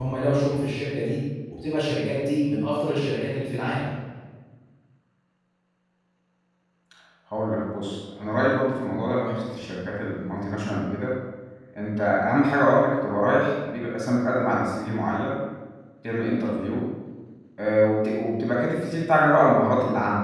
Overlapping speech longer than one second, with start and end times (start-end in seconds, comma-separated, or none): none